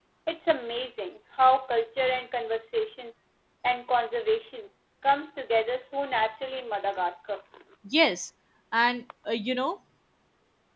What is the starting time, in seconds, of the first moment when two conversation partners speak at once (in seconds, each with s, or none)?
none